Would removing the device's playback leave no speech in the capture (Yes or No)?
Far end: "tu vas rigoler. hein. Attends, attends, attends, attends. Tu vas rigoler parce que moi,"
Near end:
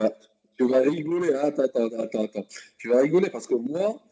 Yes